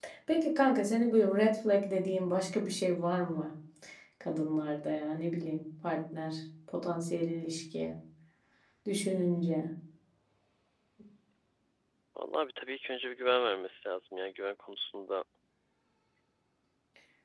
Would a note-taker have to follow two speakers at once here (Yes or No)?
No